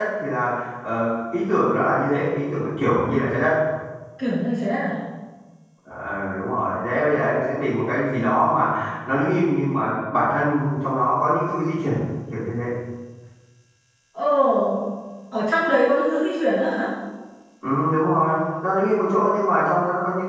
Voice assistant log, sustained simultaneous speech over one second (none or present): none